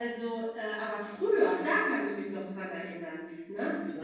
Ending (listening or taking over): listening